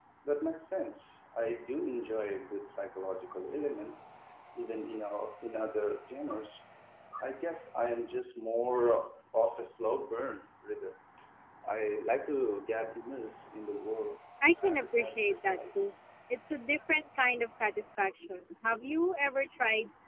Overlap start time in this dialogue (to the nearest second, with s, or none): 15 s